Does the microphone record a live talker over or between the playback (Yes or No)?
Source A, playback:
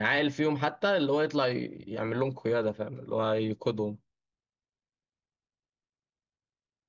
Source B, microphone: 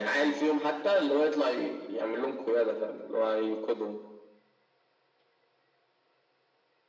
No